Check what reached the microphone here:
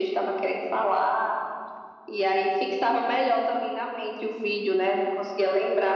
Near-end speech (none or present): none